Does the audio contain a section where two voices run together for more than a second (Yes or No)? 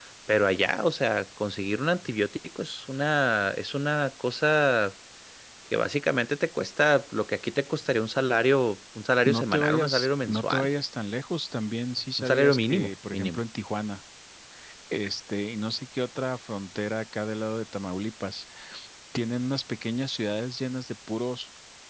Yes